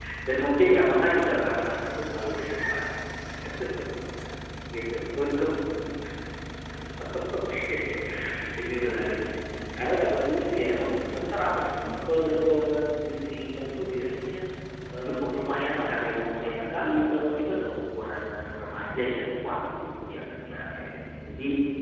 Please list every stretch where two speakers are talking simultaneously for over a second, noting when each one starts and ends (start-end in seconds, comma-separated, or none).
15.2-17.6